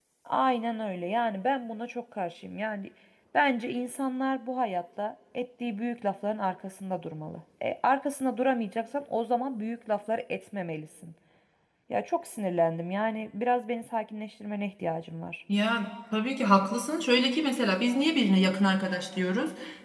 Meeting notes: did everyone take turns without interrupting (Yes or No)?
Yes